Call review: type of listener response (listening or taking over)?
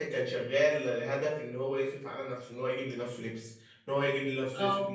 listening